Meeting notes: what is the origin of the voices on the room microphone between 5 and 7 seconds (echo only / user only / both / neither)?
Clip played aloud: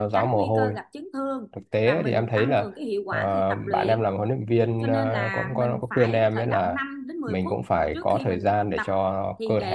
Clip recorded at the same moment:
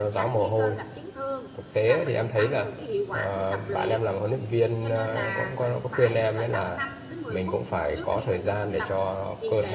echo only